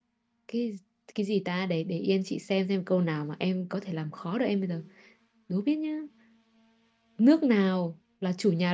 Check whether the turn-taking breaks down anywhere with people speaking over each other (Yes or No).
No